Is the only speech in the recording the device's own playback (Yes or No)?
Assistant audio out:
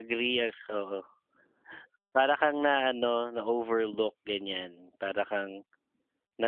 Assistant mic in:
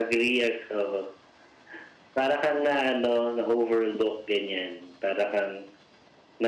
Yes